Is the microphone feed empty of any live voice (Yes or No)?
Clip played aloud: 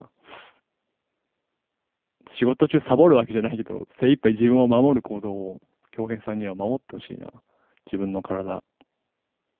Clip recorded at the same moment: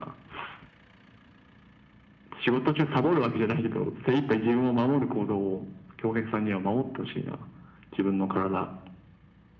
Yes